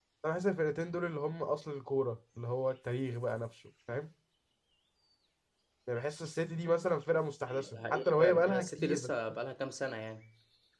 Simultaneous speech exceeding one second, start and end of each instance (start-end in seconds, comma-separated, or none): 7.8-9.1